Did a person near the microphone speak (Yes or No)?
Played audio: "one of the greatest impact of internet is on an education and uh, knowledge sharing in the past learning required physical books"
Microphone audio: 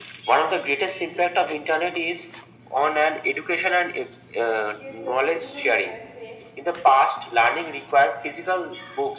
Yes